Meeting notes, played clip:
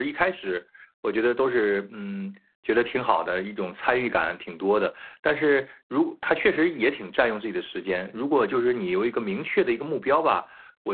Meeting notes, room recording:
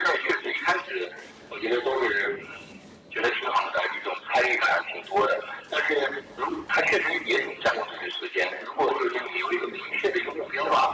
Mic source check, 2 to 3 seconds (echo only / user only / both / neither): echo only